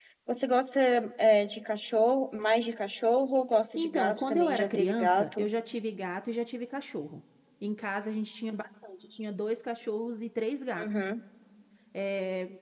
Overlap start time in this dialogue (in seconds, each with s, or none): 3.8 s